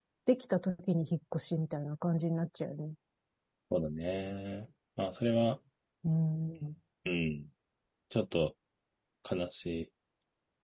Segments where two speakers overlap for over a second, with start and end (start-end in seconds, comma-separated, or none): none